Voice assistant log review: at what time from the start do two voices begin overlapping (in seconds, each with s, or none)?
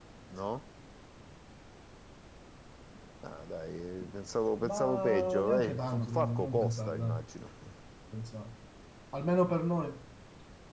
4.6 s